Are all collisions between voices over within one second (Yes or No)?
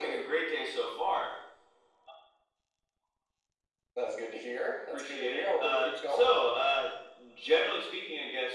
No